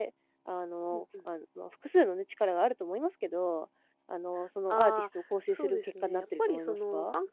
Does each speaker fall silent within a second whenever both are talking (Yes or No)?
No